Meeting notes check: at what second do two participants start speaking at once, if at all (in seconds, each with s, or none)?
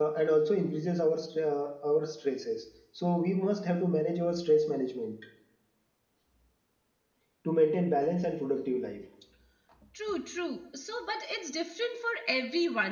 none